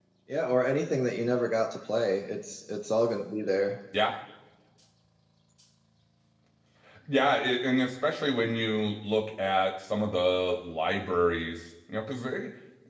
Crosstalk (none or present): none